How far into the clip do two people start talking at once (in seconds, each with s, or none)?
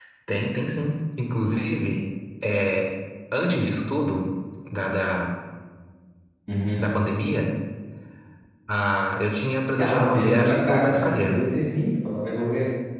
9.8 s